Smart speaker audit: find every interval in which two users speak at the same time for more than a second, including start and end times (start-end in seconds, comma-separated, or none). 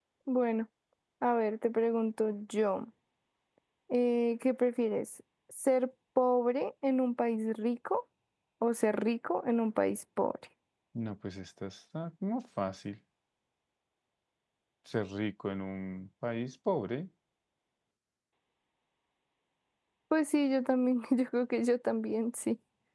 none